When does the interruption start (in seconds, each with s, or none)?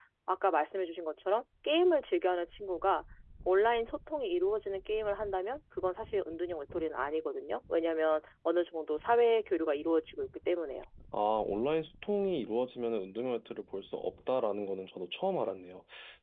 none